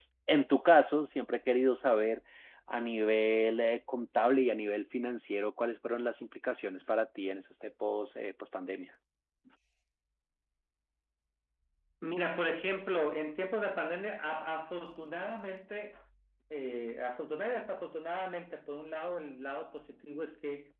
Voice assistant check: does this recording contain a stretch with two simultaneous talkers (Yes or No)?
No